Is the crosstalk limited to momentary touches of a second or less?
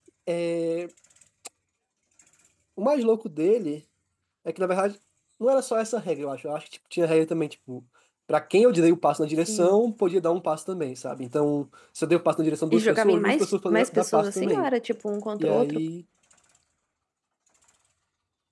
No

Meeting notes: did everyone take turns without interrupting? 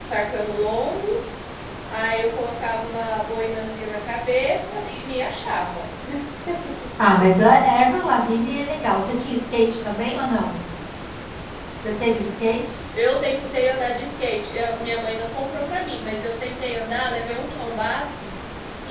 Yes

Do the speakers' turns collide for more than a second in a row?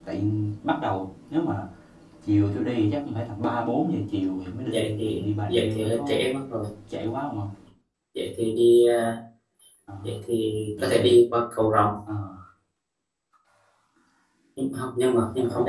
Yes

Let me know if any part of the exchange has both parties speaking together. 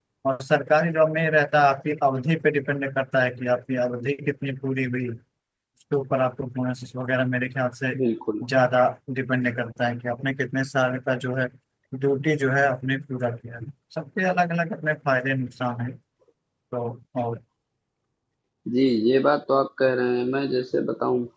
No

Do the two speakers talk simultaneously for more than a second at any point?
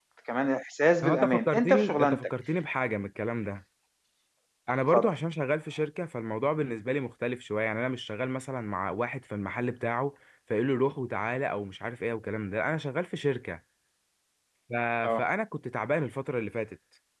Yes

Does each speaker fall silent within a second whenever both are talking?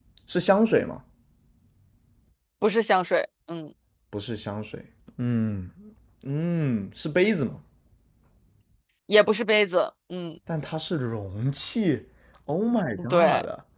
Yes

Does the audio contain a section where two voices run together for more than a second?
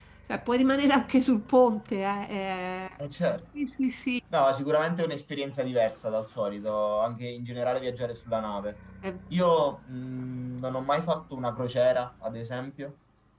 No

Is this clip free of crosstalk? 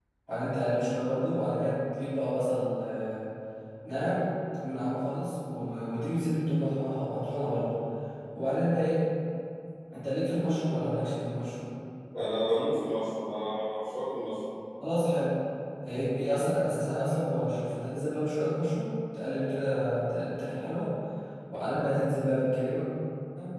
Yes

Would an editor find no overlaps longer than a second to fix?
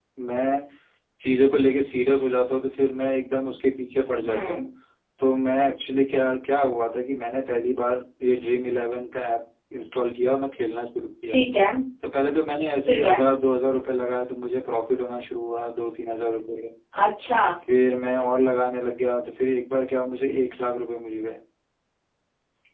Yes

